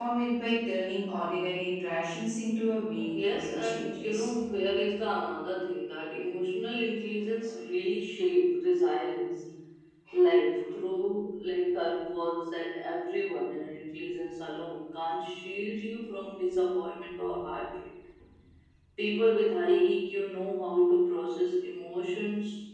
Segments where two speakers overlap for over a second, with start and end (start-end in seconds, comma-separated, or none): 3.1-4.4